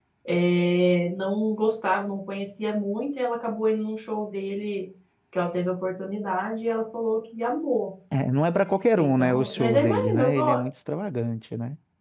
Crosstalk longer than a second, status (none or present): present